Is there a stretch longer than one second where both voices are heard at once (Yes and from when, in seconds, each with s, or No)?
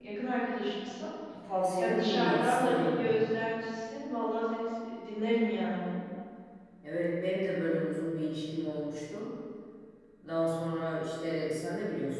Yes, from 1.7 s